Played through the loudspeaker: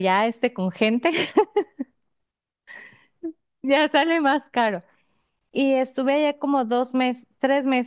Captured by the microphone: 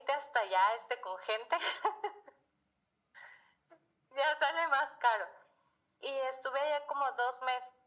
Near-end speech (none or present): none